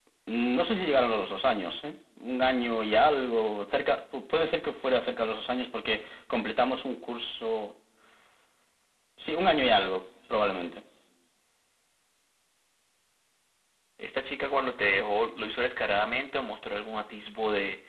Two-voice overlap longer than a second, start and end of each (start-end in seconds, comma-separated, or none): none